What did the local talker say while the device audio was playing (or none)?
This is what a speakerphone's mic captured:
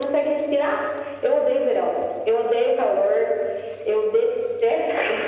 none